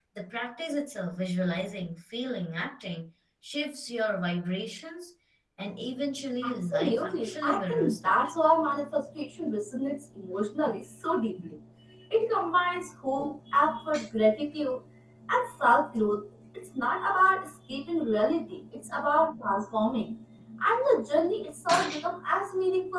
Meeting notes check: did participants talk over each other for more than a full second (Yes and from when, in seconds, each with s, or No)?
Yes, from 6.4 s